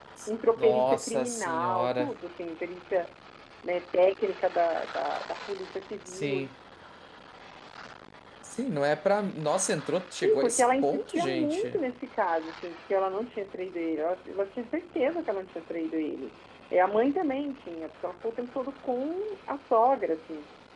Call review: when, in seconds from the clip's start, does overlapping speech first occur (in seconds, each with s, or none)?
0.6 s